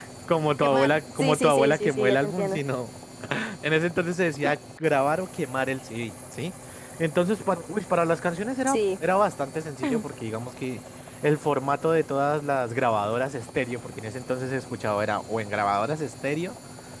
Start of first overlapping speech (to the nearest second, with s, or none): 1 s